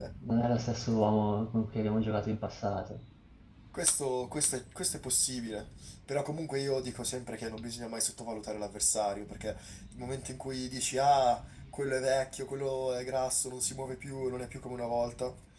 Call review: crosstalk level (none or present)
none